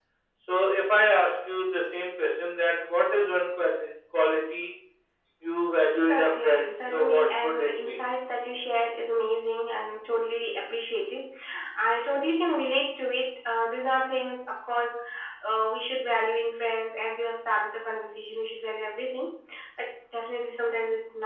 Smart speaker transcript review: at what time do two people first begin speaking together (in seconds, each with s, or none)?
6.1 s